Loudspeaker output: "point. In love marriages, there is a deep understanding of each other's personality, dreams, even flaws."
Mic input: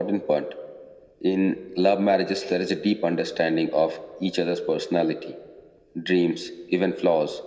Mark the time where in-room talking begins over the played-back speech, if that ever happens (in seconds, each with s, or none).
none